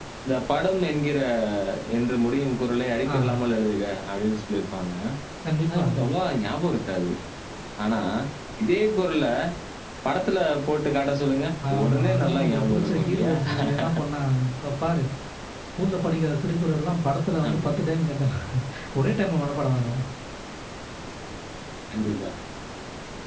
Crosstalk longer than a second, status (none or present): present